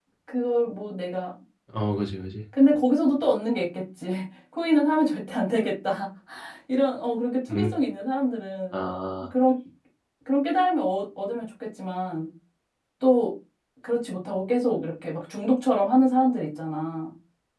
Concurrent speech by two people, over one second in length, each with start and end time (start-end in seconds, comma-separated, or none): none